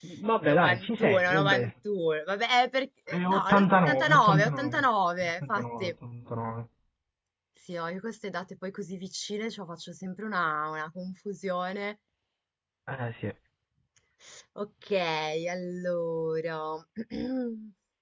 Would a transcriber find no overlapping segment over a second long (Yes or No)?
No